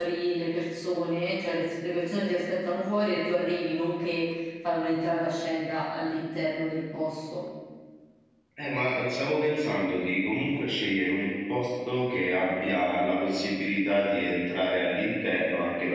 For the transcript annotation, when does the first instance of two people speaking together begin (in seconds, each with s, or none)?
none